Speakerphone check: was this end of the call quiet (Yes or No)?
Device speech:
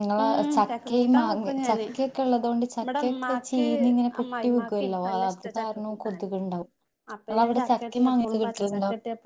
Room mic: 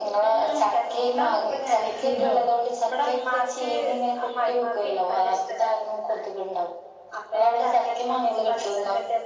No